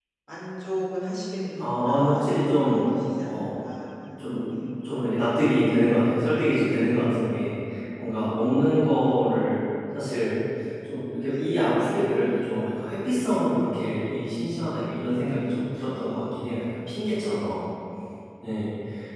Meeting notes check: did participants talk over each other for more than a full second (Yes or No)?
Yes